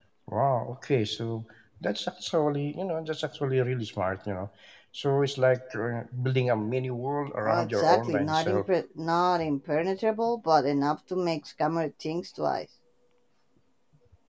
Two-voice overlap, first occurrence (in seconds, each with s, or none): 7.4 s